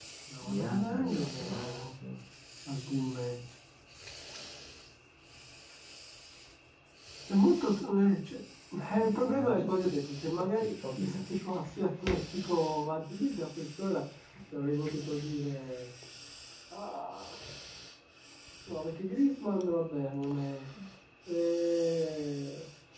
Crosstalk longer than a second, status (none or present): present